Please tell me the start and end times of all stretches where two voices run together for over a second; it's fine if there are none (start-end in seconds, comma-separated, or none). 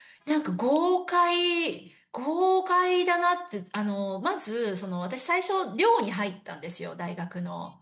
none